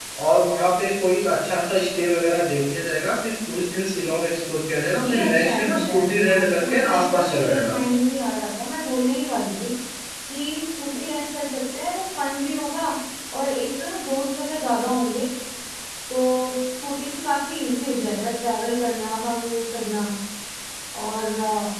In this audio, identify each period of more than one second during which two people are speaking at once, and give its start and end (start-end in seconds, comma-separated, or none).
5.0-7.7